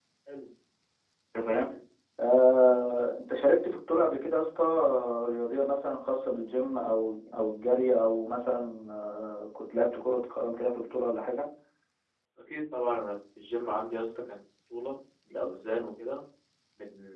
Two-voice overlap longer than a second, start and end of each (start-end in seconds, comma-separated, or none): none